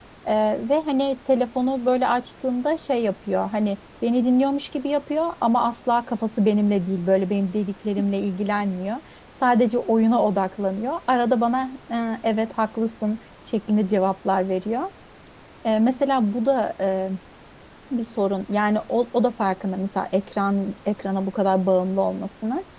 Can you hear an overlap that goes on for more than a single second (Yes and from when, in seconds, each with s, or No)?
No